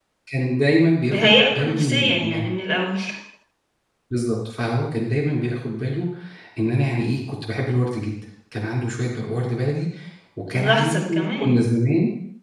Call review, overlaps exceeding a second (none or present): present